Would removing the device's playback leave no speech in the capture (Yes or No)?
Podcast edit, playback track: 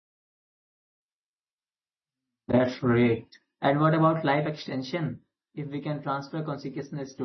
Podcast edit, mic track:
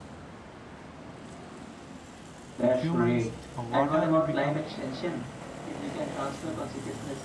No